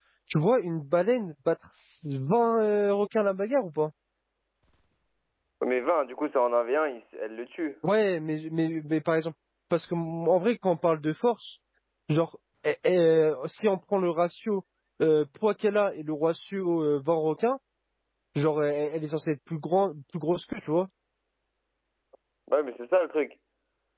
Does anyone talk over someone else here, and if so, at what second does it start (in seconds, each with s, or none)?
none